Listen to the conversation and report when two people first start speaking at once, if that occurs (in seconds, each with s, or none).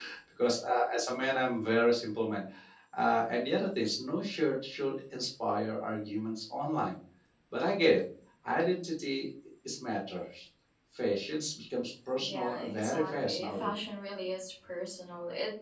12.2 s